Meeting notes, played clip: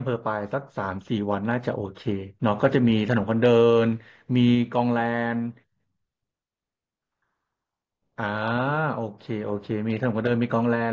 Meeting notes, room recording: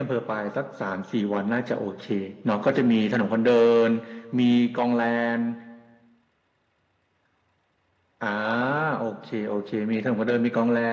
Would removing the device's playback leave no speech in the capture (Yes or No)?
Yes